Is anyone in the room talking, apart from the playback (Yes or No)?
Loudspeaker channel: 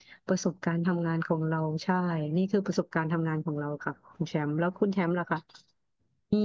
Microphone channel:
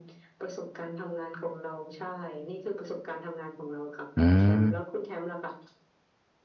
Yes